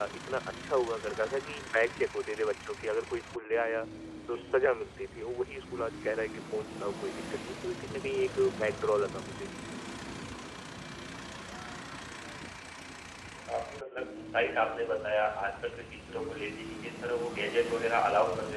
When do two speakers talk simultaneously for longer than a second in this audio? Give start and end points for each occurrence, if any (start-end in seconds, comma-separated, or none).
none